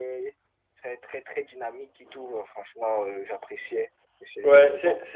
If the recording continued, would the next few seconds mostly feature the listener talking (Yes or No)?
Yes